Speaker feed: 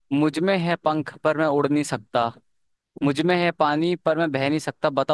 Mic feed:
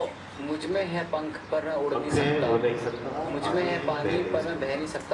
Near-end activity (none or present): present